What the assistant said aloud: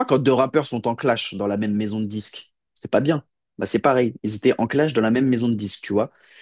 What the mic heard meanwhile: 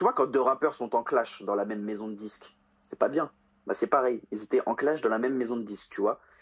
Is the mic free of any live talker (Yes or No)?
Yes